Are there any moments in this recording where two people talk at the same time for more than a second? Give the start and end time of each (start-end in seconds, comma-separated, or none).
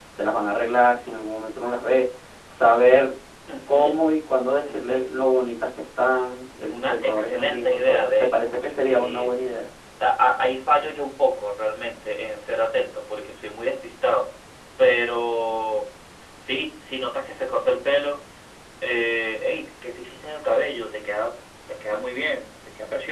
6.7-9.3